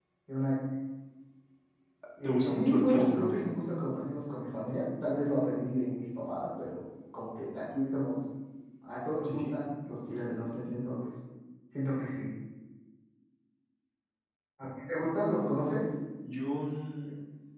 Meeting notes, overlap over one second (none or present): present